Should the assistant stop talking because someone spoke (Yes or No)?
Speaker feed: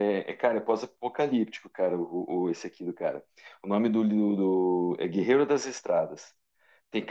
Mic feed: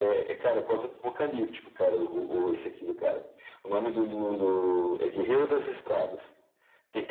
No